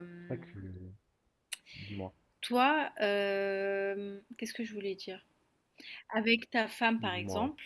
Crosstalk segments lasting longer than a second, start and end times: none

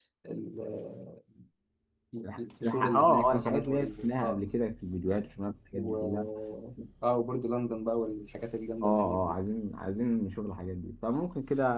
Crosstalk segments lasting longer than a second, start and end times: 2.4-4.4

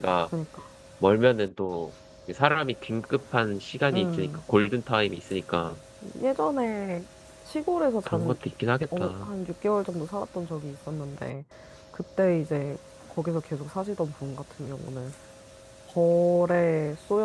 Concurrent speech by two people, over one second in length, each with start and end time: none

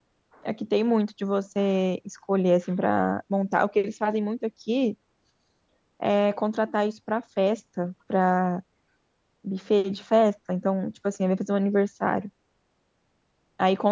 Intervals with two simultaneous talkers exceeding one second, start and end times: none

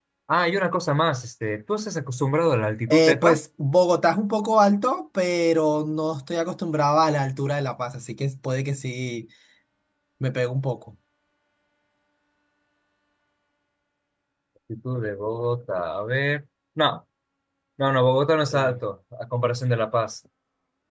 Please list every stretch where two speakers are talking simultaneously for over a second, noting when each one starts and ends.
none

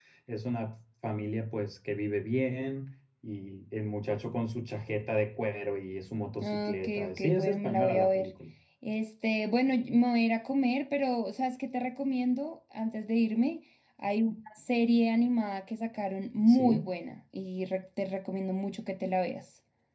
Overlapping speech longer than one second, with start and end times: 6.4-8.3

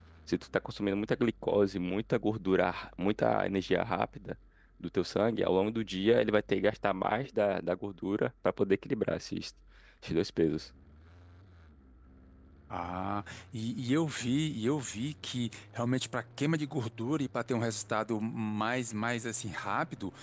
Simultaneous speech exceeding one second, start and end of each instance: none

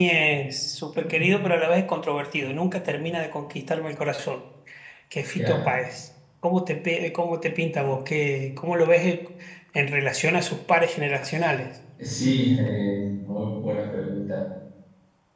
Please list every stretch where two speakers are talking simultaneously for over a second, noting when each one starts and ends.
none

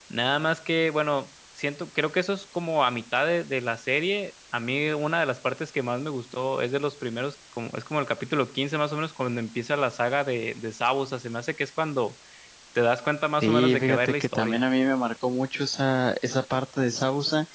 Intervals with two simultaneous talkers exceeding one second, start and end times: 13.4-14.6

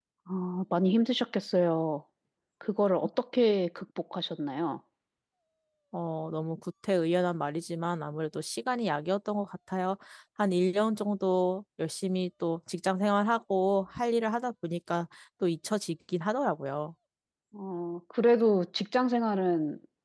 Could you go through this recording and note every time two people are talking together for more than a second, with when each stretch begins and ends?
none

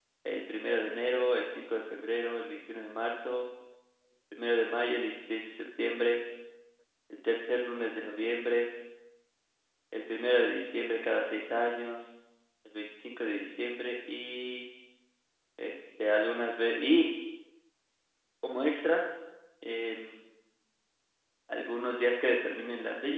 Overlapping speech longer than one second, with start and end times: none

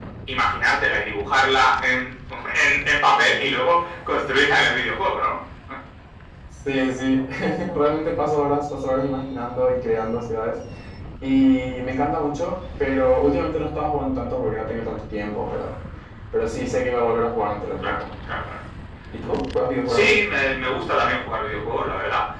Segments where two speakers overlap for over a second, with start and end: none

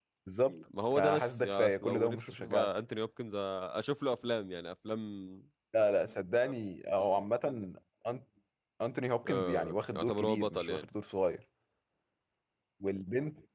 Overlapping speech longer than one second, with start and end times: 0.9-2.7, 9.3-10.9

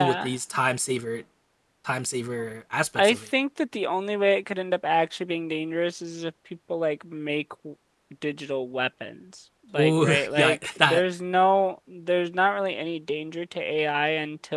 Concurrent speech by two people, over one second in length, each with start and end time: 9.8-11.0

